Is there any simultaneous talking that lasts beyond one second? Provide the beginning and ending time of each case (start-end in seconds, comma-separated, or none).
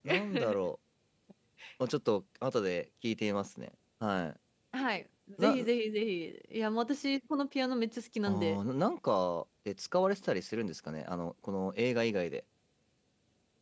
none